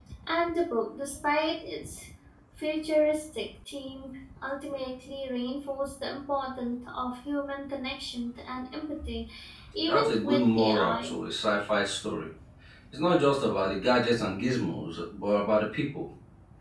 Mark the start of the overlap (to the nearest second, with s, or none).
10 s